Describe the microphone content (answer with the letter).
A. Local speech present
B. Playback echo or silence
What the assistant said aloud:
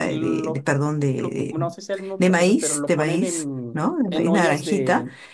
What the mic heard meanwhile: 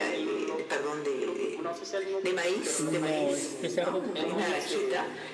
A